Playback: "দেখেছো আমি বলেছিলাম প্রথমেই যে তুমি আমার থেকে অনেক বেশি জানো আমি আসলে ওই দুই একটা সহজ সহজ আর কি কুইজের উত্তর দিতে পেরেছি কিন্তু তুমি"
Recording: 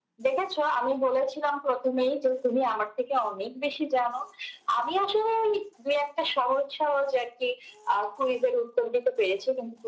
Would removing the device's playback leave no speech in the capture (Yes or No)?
Yes